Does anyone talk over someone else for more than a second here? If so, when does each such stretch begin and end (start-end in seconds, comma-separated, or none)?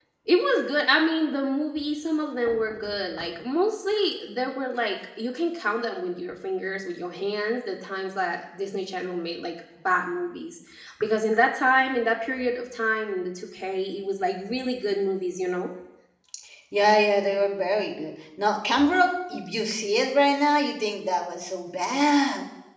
none